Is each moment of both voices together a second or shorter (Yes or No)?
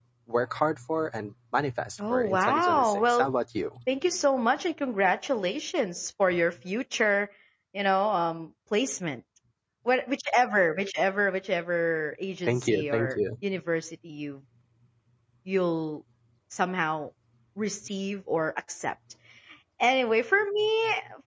No